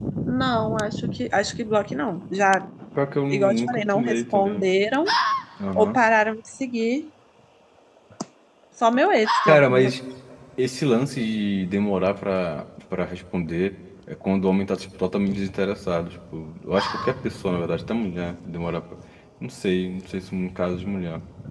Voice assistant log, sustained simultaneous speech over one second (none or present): present